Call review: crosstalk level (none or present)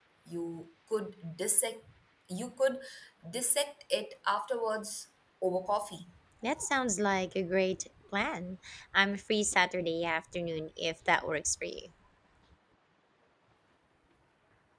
none